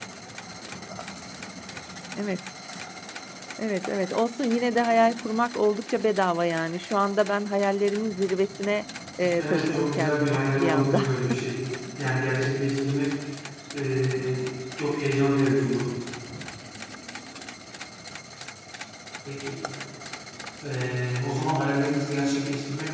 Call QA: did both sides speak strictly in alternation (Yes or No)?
No